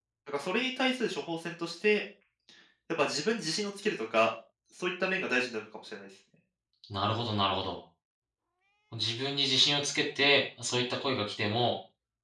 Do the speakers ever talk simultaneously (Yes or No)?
No